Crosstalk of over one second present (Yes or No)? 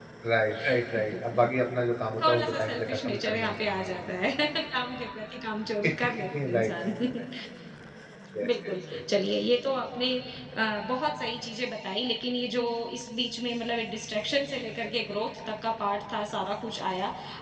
Yes